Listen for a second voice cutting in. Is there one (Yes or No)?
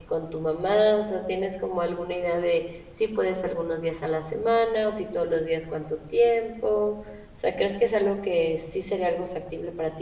No